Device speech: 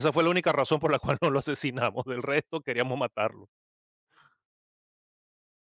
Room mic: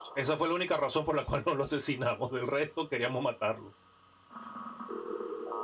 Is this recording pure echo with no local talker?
Yes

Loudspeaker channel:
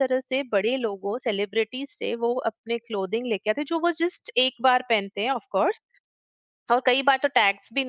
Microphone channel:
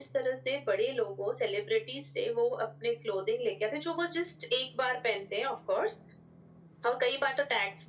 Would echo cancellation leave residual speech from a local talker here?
No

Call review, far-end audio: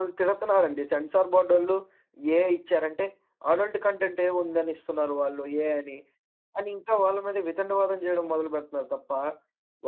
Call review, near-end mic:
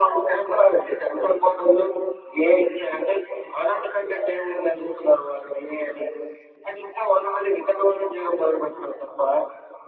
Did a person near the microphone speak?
No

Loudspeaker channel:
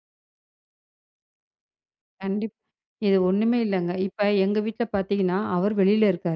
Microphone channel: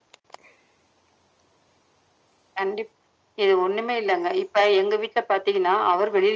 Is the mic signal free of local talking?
Yes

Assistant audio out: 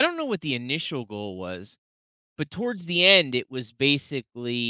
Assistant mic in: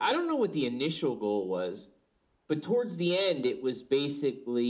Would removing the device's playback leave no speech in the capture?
Yes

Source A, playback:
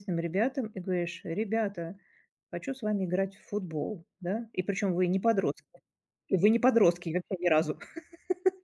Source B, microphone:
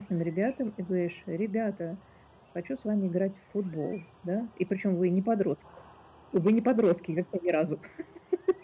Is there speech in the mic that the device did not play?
No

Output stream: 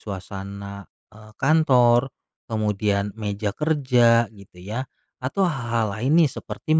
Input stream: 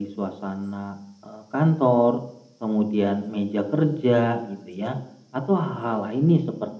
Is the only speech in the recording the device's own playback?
Yes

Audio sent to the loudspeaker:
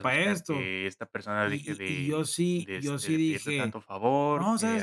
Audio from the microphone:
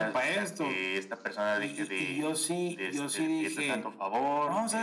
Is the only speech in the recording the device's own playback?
Yes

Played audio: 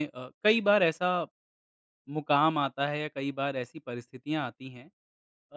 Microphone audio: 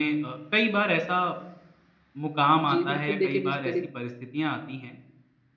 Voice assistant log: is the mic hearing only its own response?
No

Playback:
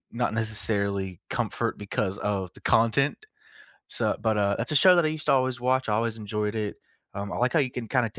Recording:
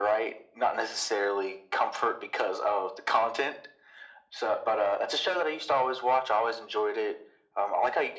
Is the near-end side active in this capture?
No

